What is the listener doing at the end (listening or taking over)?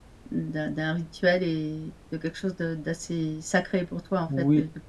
listening